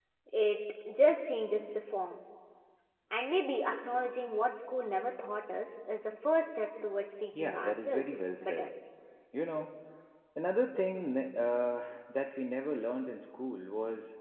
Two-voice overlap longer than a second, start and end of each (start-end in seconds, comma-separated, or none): 7.3-8.7